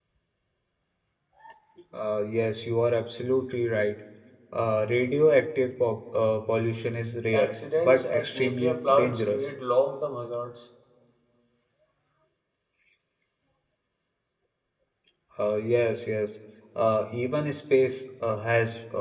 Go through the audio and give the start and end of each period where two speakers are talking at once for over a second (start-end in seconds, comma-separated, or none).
7.3-9.5